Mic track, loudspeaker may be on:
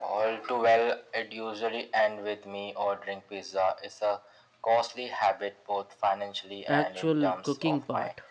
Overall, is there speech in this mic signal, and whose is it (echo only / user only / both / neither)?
both